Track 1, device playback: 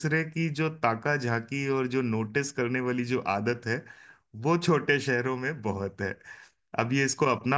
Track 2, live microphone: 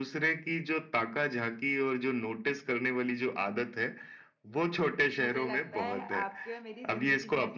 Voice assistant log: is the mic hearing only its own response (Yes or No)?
No